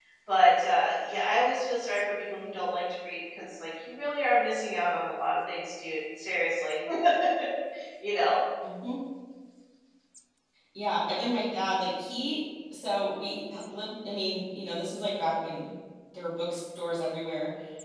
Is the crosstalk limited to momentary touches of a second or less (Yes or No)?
Yes